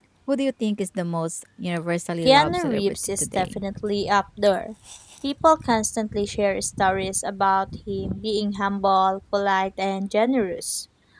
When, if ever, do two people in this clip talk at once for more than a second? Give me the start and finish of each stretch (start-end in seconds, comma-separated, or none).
2.2-3.6